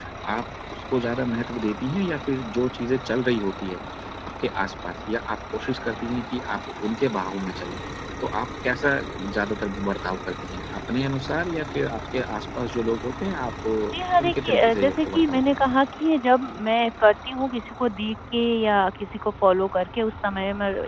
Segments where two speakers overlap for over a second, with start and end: 14.2-15.7

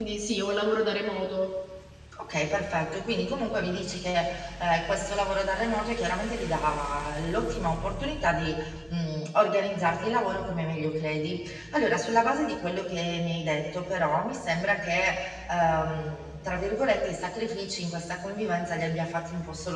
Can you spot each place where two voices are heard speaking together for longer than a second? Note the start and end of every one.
none

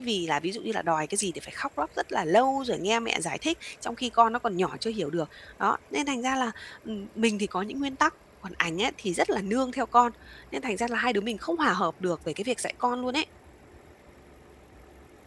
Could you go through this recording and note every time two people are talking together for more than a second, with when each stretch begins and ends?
none

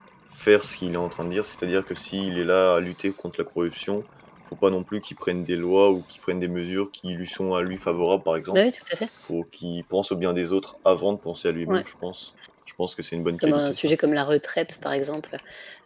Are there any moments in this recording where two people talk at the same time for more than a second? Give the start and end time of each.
none

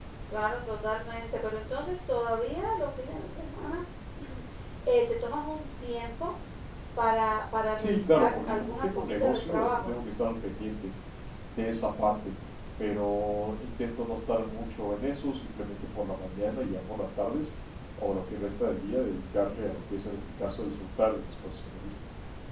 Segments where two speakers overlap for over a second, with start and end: 7.8-9.9

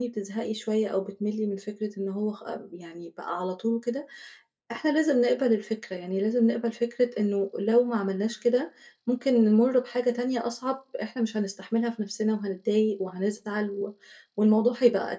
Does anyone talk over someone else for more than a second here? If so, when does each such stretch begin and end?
none

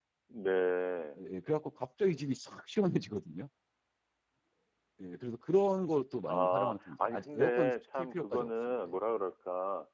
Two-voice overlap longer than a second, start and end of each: 6.3-8.8

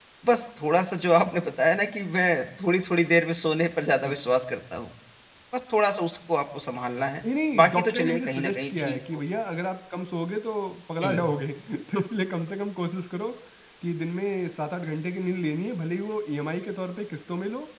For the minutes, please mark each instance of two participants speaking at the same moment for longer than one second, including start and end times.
7.5-9.2

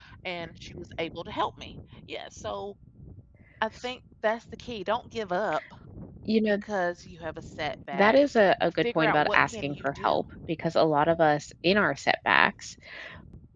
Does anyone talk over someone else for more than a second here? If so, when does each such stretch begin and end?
8.8-10.2

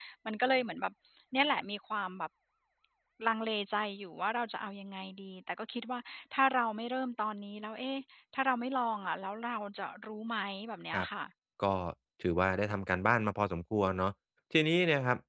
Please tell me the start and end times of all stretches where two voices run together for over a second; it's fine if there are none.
none

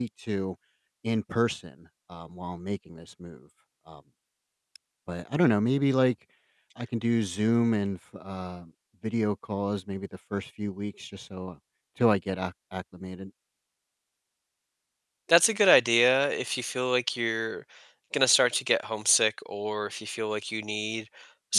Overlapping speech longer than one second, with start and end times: none

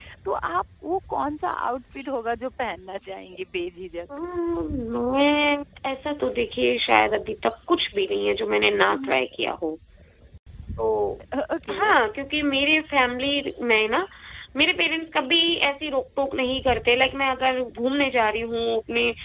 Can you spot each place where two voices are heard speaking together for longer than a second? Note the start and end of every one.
none

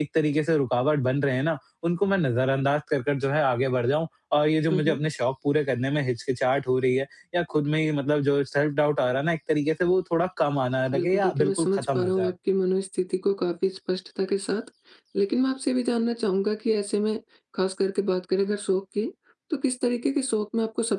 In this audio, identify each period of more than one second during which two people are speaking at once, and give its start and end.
10.9-12.3

